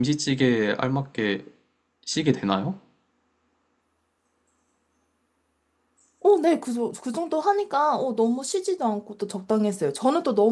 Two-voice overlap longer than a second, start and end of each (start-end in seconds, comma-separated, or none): none